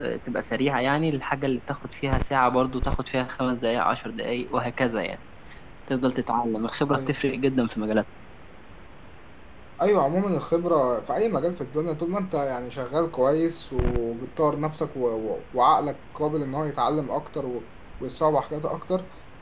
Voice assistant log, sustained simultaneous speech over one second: none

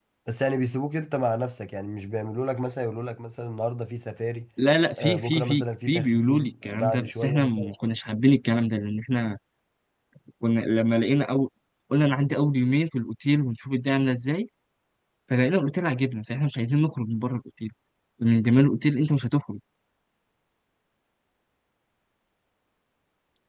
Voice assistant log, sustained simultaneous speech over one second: present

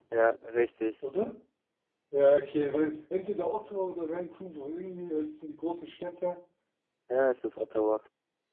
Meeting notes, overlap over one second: none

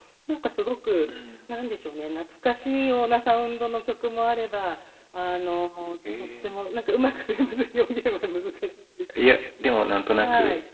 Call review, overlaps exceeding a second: none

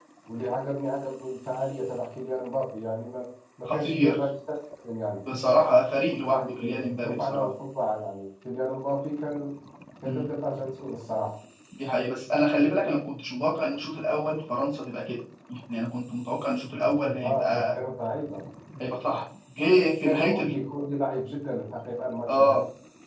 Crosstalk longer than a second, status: present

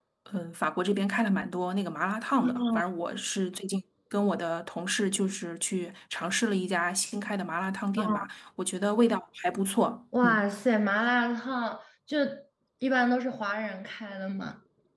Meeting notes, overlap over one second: none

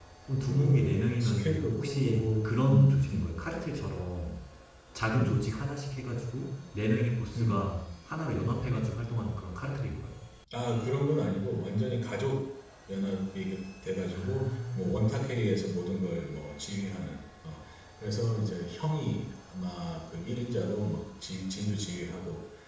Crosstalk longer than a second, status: present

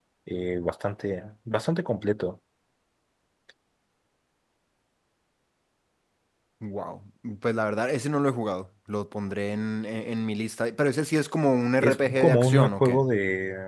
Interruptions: present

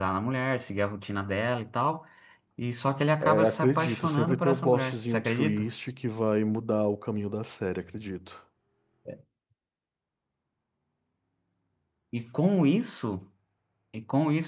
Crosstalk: present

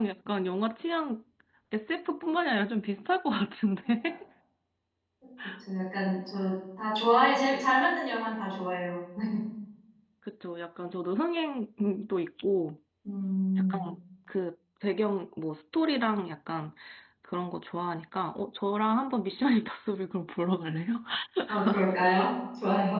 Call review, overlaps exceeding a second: none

